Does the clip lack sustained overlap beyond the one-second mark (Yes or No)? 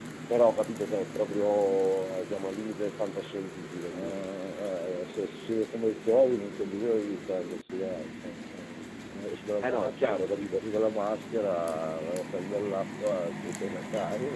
Yes